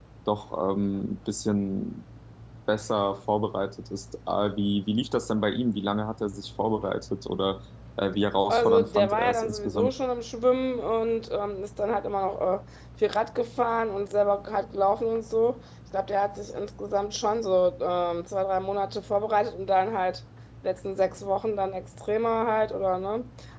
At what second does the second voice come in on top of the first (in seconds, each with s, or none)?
8.5 s